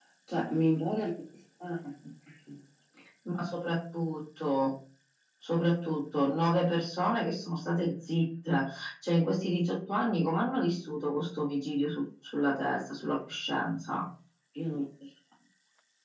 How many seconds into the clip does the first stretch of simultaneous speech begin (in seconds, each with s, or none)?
none